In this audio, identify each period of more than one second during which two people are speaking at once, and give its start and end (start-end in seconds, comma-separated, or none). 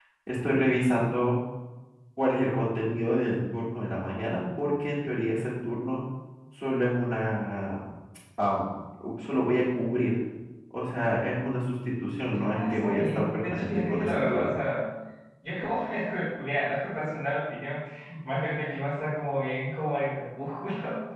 12.4-14.5